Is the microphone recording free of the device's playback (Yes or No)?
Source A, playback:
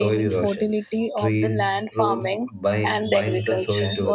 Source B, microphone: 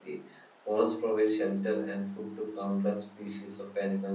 Yes